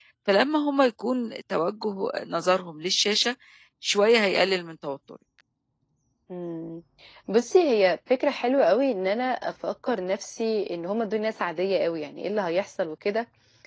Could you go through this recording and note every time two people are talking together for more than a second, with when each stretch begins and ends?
none

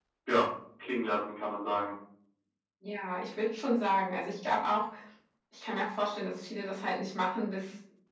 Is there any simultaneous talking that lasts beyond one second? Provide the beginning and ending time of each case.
none

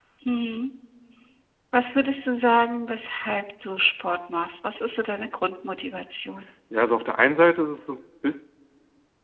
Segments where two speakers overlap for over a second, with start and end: none

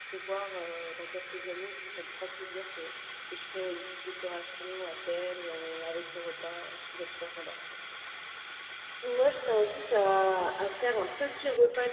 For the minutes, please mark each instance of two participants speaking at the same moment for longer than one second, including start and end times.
none

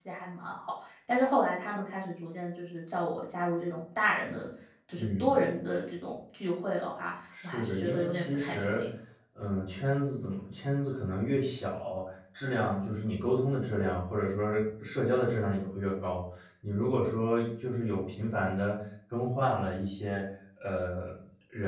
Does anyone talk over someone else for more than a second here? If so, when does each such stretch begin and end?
7.4-8.8

